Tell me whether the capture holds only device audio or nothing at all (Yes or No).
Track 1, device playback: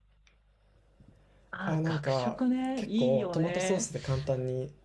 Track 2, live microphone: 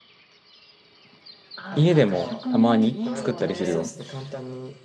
No